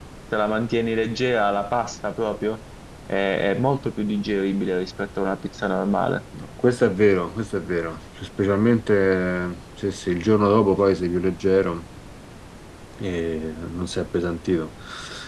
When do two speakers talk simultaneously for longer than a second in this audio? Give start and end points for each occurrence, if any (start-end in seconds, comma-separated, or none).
none